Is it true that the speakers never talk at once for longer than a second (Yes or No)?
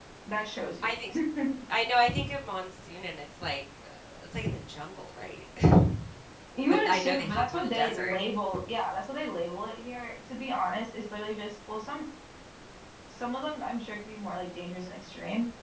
No